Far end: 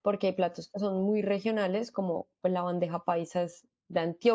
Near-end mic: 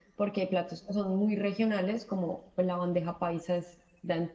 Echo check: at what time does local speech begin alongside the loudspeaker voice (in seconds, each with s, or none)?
none